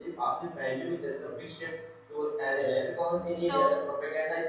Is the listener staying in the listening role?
Yes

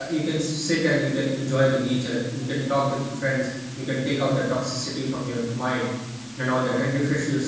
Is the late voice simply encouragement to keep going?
Yes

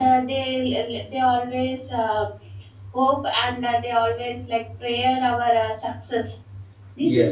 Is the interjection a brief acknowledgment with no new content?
Yes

